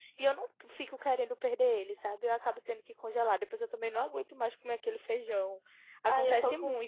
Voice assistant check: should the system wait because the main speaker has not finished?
No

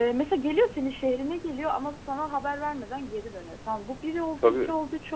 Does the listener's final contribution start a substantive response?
No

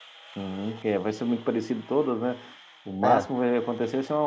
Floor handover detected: No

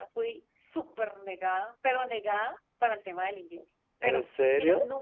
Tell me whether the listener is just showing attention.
Yes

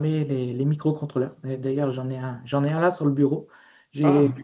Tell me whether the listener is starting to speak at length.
No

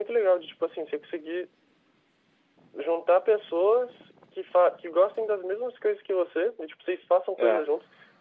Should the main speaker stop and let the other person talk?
No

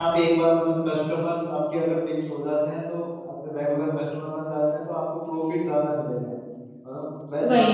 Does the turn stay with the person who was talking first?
Yes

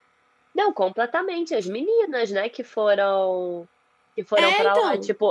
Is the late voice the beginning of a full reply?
No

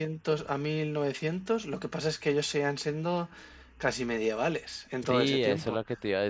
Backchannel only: No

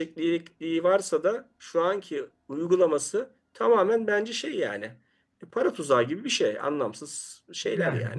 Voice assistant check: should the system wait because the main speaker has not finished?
No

